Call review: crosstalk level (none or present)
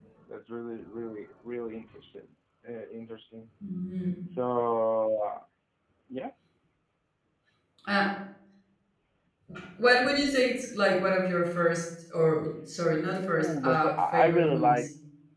present